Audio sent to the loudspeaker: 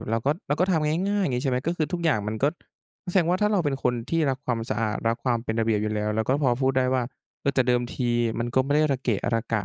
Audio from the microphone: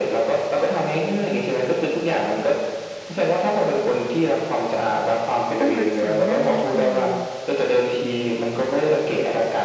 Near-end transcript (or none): ต้องรักษาหน้านิดหนึ่ง